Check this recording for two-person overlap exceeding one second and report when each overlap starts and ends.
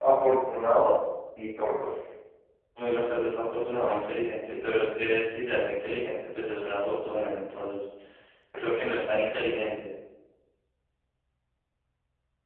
none

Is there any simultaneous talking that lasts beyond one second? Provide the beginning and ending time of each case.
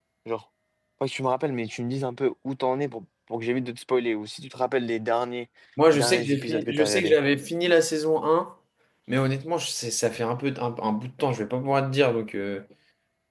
5.9-7.2

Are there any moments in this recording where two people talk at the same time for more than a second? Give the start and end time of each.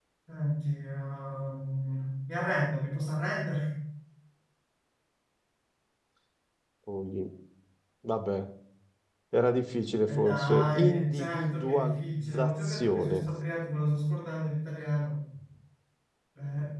10.1-13.2

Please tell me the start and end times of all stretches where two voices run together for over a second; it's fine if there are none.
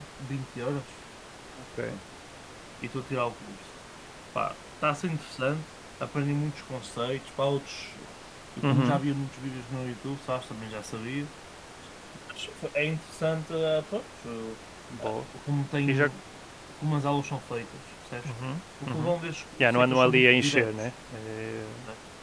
19.6-20.9

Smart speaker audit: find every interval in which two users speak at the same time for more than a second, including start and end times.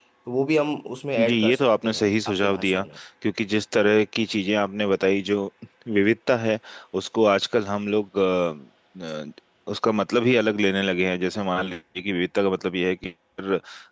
1.3-2.8

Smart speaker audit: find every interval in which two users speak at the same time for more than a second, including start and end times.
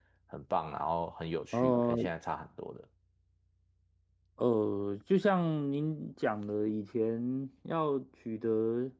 none

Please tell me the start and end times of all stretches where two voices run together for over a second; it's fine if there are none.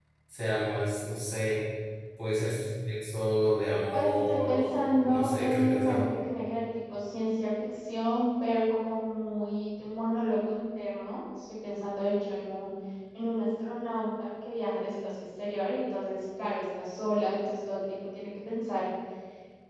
3.9-6.0

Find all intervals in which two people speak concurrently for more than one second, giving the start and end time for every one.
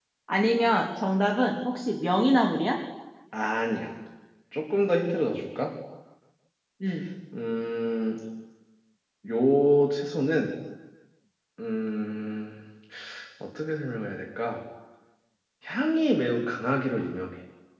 none

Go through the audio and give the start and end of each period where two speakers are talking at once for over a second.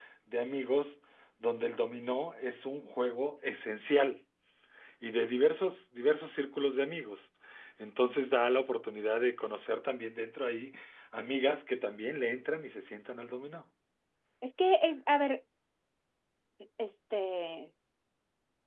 none

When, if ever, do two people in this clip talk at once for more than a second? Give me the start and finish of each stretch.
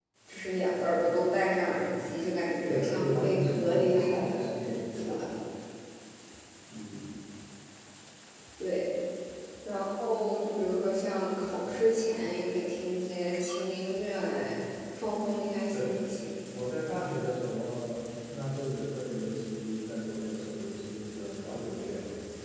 2.7-4.5

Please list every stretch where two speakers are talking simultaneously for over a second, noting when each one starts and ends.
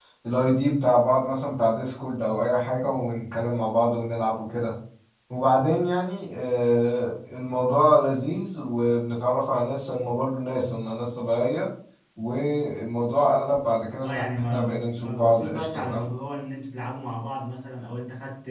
14.0-16.1

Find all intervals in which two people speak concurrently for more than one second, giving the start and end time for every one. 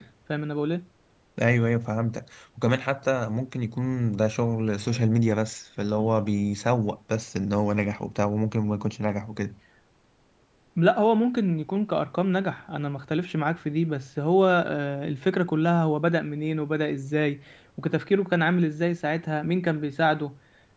none

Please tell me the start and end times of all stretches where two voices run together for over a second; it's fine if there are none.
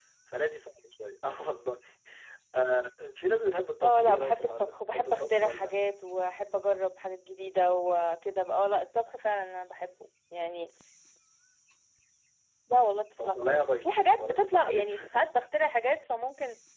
3.8-5.8, 13.2-15.0

